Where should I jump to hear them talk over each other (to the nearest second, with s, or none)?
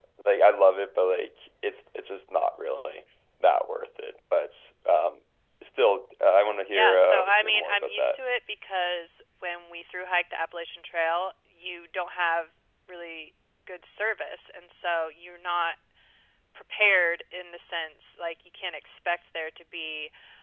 7 s